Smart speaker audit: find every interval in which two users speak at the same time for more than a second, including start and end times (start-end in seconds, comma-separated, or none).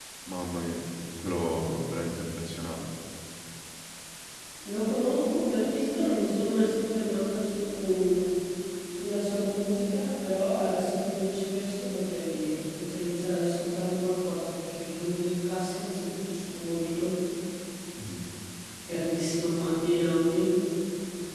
none